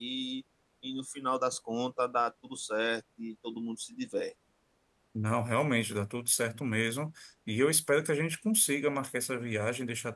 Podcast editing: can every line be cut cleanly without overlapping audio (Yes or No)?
Yes